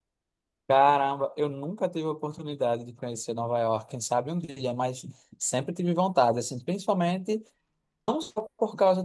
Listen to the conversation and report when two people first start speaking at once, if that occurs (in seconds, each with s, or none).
none